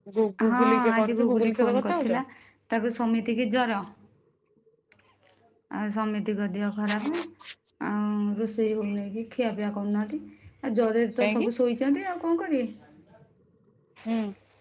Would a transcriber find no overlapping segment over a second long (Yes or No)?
No